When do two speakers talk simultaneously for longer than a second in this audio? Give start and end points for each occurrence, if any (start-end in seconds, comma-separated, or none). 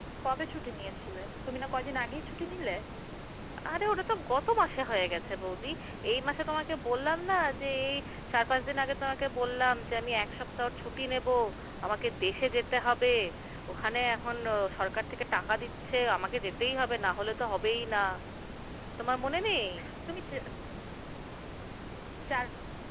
none